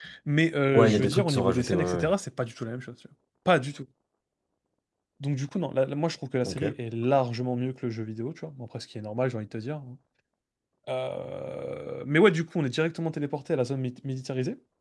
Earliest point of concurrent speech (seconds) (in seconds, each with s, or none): 0.7 s